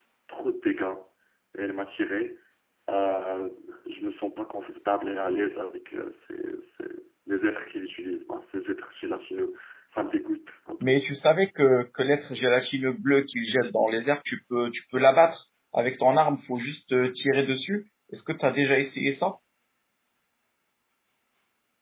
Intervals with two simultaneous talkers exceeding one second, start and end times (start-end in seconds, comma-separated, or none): none